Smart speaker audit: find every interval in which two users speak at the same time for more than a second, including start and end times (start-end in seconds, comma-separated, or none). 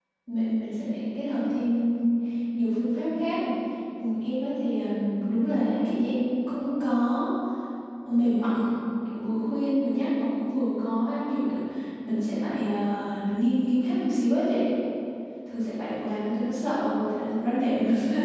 none